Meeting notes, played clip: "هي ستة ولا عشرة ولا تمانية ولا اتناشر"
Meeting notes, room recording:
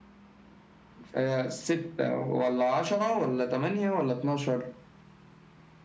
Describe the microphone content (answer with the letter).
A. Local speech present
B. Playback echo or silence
B